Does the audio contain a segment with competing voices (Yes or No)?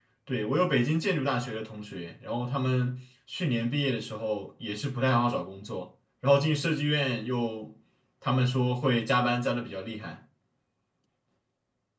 No